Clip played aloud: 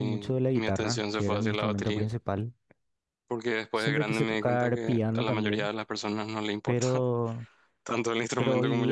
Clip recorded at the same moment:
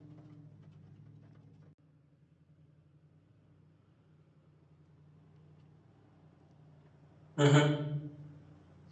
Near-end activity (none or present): present